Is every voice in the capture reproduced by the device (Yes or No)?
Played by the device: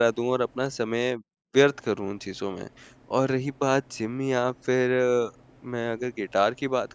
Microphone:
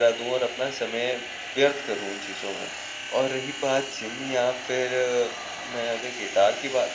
Yes